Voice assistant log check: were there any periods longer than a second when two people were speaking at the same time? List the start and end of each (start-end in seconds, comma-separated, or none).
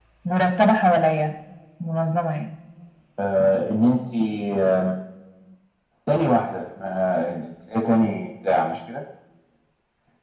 none